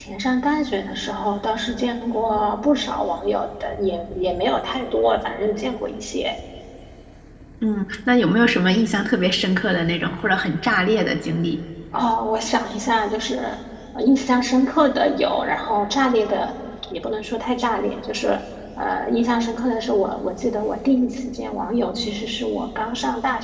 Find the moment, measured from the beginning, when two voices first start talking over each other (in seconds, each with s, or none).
none